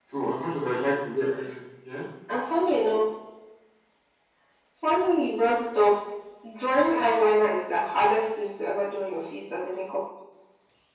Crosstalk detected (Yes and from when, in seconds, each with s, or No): No